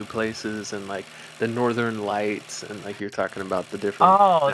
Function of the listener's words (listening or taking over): taking over